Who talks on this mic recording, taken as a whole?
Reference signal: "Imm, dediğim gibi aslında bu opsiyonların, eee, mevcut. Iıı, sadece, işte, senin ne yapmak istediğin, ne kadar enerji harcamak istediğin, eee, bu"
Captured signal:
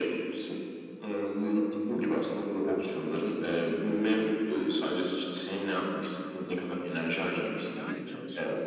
both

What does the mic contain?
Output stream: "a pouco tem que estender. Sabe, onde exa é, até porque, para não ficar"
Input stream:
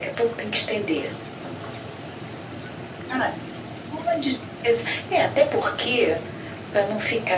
echo only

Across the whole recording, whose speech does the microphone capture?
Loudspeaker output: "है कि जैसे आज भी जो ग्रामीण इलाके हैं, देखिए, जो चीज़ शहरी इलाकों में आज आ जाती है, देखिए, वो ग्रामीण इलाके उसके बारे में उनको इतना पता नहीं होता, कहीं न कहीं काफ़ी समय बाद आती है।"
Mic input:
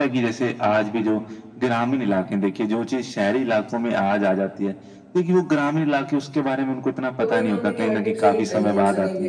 both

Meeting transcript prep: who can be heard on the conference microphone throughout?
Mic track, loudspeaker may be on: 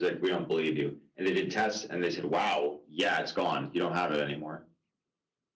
echo only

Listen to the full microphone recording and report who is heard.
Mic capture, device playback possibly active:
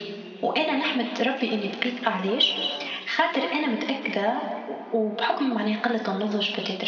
echo only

